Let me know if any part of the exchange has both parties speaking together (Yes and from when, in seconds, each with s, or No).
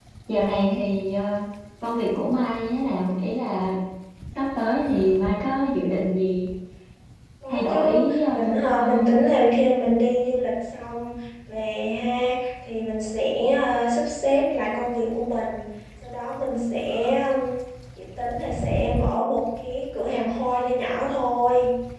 Yes, from 7.5 s